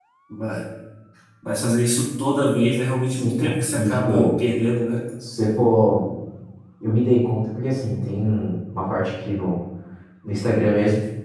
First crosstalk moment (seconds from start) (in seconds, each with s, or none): 3.1 s